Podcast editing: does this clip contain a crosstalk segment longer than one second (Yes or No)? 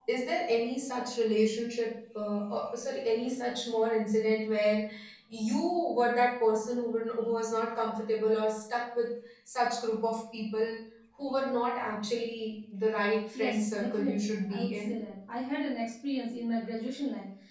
Yes